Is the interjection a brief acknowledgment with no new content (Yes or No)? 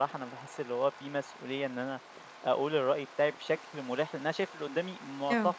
Yes